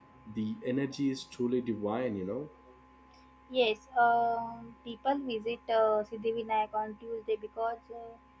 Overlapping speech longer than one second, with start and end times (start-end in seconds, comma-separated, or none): none